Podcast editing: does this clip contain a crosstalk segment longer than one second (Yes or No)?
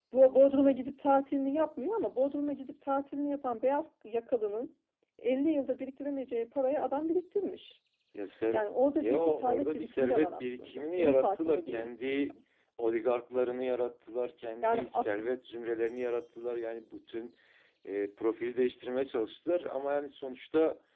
Yes